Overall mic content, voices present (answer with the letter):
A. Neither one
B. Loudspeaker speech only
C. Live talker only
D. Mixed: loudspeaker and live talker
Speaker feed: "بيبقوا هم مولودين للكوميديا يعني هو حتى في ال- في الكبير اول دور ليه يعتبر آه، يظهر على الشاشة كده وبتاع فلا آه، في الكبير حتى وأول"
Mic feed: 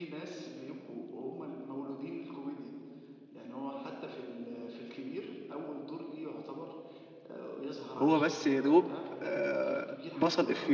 D